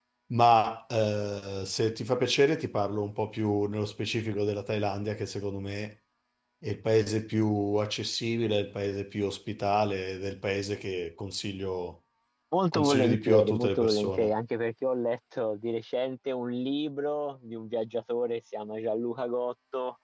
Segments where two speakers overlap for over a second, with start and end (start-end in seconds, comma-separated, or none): 12.7-14.3